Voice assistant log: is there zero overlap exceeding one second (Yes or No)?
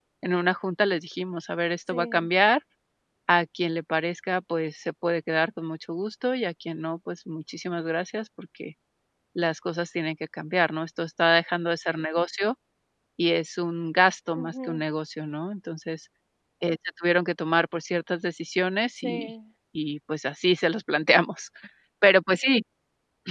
Yes